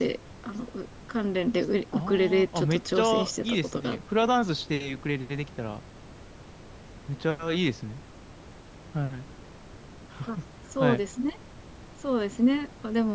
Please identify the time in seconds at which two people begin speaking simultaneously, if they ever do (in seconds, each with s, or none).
1.9 s